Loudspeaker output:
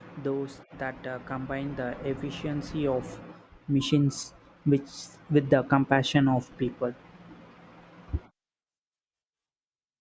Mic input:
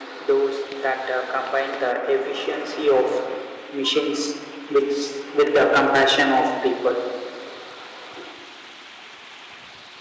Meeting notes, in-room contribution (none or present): none